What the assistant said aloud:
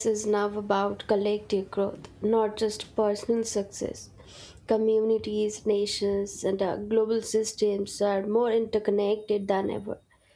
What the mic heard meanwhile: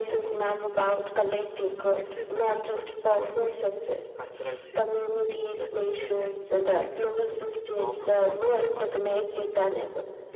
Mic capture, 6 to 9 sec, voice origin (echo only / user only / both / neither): both